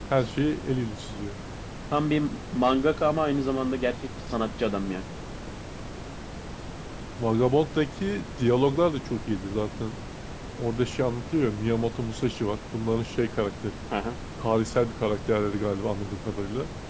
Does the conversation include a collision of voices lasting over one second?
No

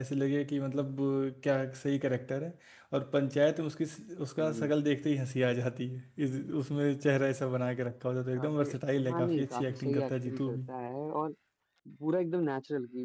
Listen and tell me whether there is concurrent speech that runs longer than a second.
Yes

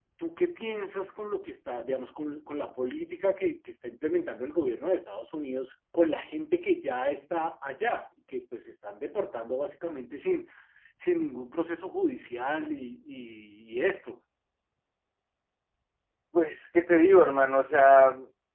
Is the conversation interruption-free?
Yes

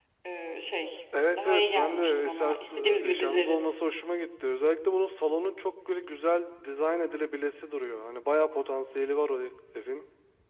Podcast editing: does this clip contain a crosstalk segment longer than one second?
Yes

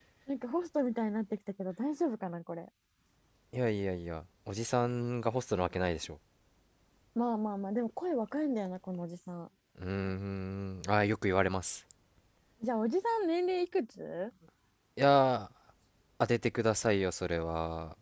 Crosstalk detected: No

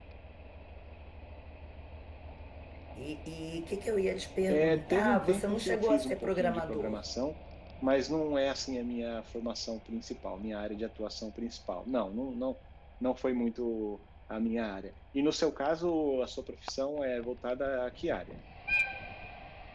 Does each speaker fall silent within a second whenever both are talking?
No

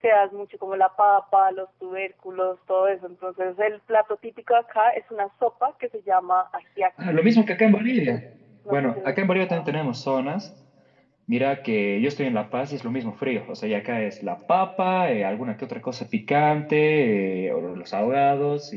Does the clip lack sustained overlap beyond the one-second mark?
Yes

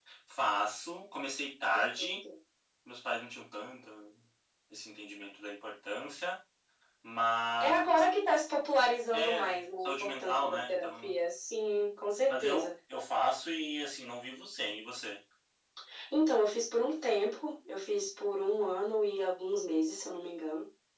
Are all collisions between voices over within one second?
No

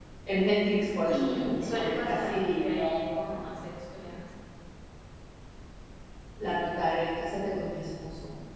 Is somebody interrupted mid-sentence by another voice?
Yes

